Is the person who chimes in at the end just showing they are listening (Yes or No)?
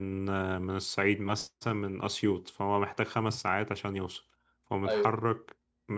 Yes